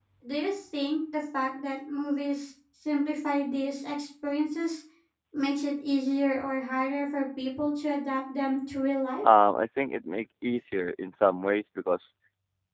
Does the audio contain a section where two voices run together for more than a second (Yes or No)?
No